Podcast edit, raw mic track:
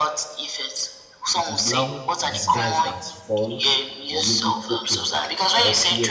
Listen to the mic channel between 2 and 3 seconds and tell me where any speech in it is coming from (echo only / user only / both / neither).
both